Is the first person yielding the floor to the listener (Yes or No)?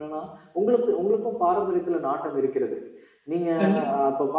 No